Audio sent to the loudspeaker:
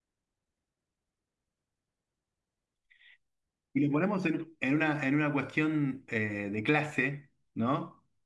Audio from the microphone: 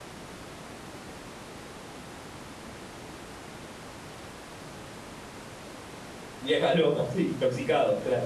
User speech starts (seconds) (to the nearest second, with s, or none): 6 s